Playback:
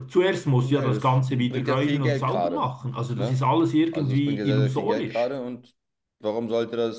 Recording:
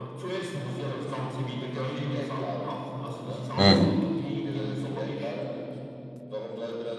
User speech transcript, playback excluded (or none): Mhm.